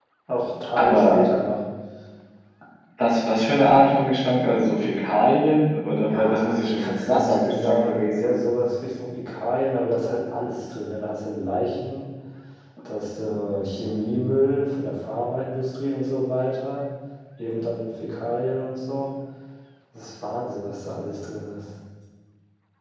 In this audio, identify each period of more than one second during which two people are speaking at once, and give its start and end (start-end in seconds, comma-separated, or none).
6.0-8.1